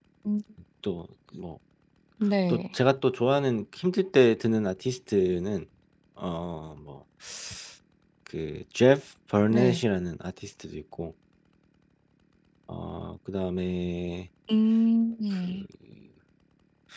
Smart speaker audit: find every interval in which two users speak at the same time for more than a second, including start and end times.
none

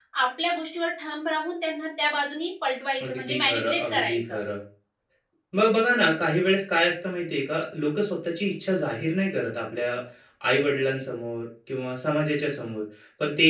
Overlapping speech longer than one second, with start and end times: 3.1-4.4

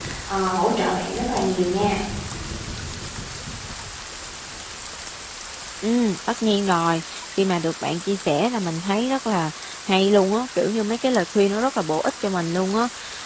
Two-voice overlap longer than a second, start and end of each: none

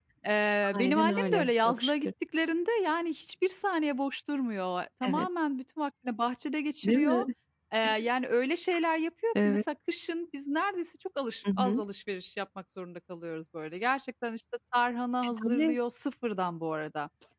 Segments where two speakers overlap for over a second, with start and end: 0.7-2.1

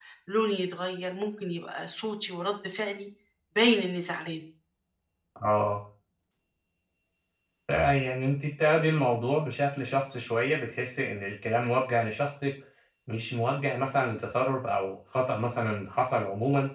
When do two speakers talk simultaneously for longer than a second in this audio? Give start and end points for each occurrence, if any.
none

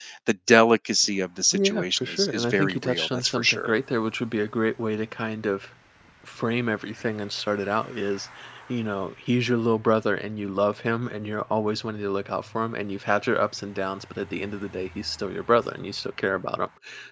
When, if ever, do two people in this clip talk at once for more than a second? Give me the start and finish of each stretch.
1.5-3.7

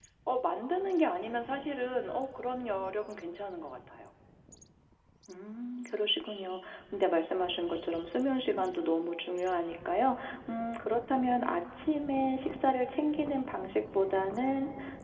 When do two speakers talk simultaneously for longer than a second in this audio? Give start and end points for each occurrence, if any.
none

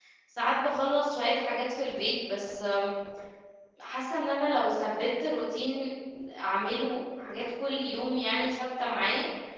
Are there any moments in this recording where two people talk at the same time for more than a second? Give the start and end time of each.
none

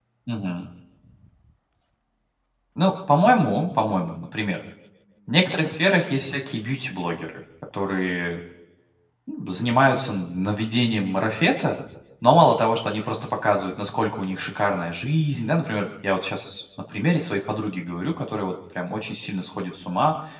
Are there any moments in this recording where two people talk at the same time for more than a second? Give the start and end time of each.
none

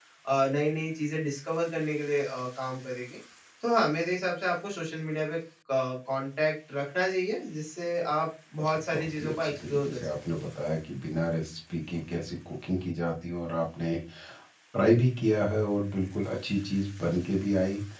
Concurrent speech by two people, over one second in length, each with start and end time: 8.6-10.4

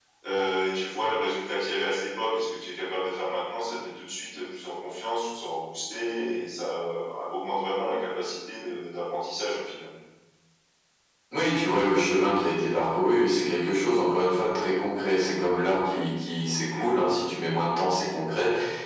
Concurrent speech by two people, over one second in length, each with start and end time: none

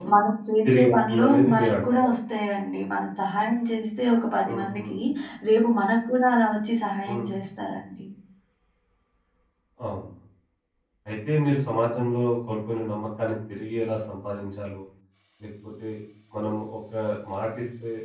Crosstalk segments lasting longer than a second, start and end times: 0.6-2.1

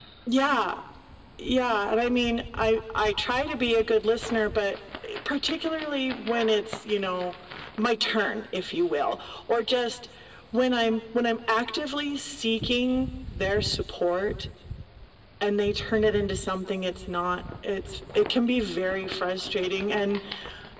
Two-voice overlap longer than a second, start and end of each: none

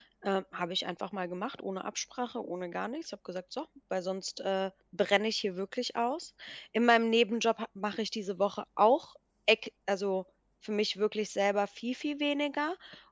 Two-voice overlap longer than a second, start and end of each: none

